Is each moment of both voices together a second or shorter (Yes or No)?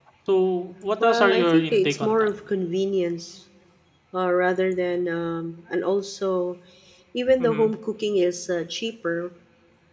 No